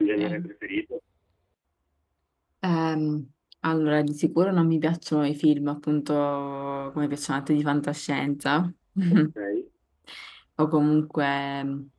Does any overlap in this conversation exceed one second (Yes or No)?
No